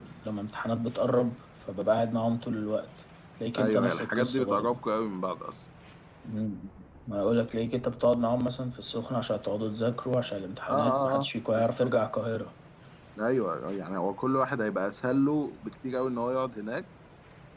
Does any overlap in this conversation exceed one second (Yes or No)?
Yes